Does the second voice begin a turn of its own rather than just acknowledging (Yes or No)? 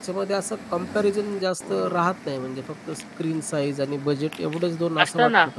Yes